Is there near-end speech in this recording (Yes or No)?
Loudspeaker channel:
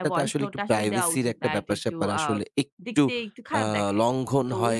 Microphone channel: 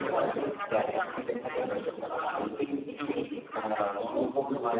No